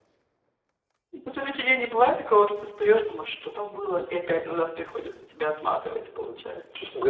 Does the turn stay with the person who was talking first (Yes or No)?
No